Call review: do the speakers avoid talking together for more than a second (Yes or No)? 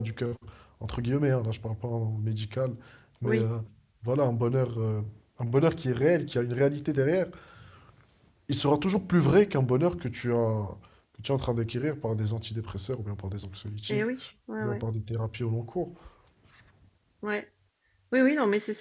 Yes